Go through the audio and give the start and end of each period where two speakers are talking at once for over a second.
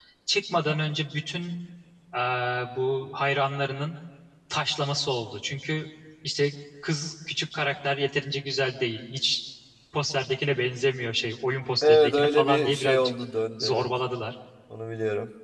11.8-13.1

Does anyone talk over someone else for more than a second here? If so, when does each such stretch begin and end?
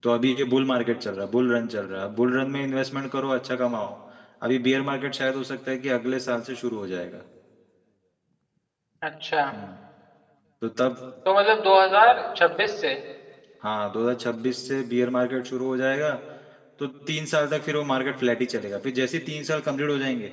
none

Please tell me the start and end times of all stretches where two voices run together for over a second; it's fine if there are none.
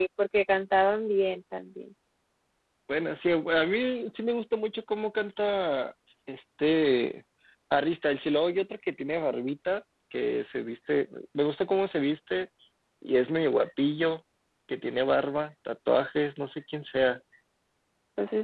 none

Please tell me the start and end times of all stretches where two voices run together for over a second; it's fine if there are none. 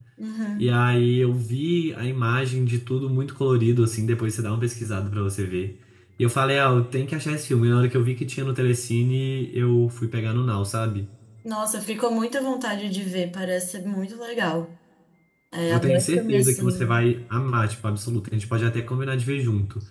15.7-17.0

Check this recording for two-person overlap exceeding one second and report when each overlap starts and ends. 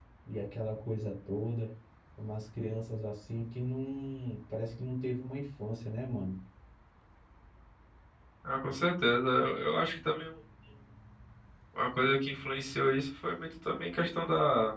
none

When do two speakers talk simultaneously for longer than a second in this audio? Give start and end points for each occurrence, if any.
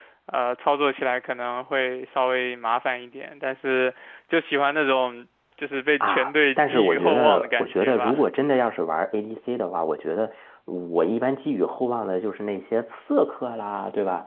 6.0-8.2

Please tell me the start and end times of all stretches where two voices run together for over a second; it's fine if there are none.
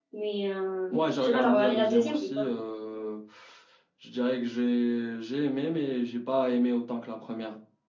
0.9-2.4

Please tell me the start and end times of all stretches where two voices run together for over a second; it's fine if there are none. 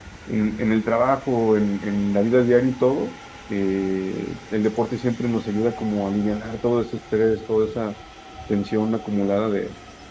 none

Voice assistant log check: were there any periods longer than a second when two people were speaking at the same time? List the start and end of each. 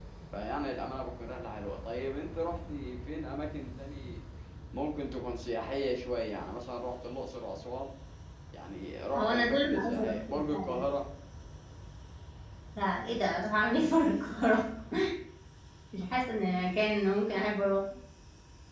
9.2-10.8

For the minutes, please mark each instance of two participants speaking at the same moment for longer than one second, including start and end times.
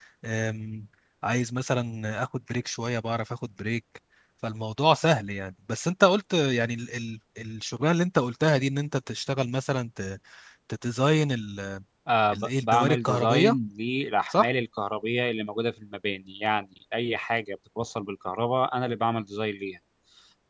12.3-13.6

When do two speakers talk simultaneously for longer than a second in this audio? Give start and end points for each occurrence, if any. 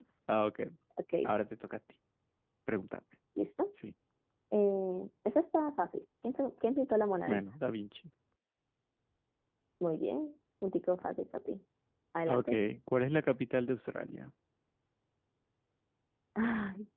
none

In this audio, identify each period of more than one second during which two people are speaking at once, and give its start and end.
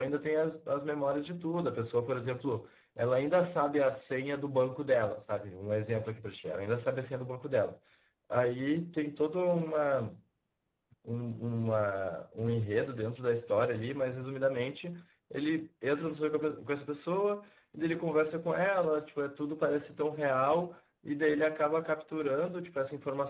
none

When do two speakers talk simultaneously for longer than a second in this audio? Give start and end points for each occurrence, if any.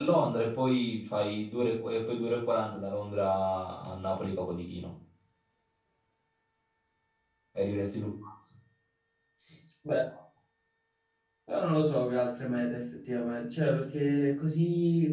none

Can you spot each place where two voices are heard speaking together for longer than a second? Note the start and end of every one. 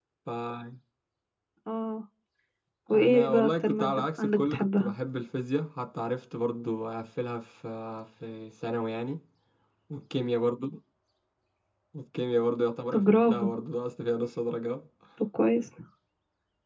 2.9-4.9

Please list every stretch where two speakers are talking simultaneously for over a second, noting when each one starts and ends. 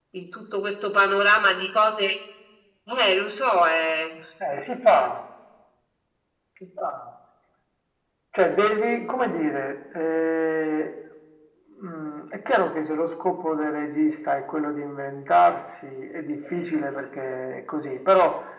none

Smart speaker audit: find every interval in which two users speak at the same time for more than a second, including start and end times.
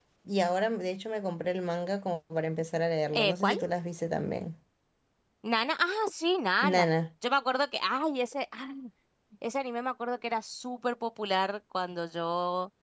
none

